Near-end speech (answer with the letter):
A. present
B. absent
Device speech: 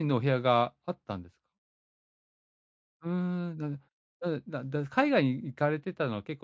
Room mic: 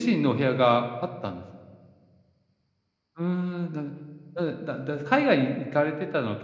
B